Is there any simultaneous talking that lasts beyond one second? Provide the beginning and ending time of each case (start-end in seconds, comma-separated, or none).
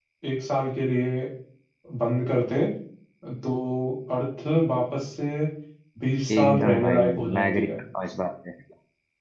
6.4-7.7